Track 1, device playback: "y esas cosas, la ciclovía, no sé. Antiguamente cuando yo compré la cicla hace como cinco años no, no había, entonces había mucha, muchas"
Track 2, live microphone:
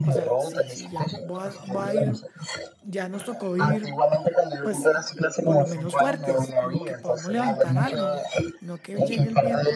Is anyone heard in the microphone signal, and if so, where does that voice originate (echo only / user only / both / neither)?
both